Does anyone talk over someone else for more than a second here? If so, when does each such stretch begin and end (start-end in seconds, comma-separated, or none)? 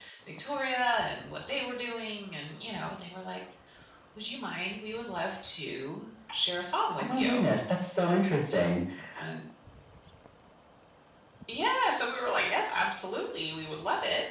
none